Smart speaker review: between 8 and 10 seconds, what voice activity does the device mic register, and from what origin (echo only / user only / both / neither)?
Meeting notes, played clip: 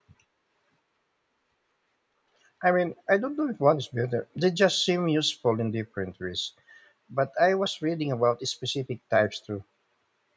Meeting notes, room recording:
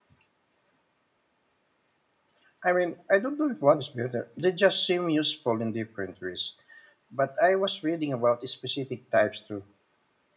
echo only